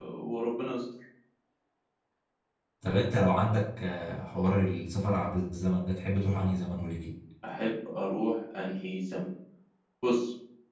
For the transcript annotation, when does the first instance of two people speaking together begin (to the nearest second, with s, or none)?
none